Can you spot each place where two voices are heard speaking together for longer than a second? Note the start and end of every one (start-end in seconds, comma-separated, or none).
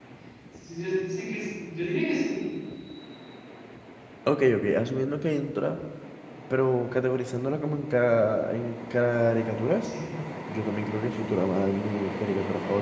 none